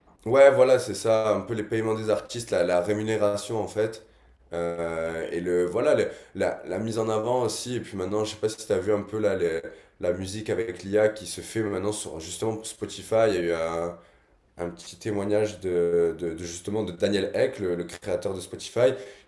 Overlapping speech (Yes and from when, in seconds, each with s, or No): No